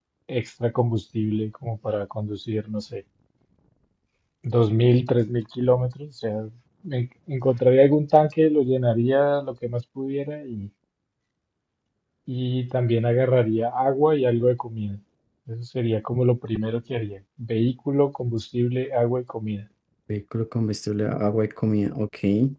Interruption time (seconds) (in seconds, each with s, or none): none